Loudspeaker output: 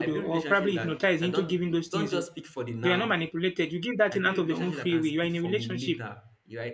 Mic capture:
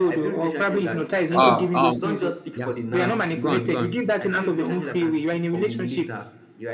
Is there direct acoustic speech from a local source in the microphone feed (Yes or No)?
Yes